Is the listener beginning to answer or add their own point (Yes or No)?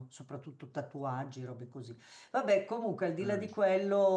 No